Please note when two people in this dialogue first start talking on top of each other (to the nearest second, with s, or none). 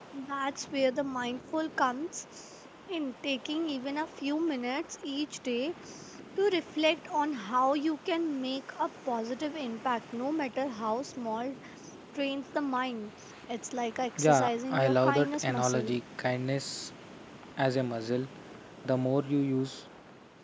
14 s